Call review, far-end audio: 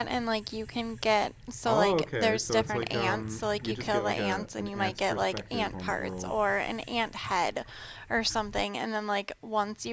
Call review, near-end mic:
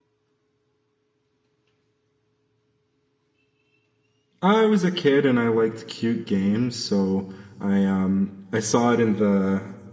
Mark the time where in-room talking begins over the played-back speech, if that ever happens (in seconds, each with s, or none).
4.4 s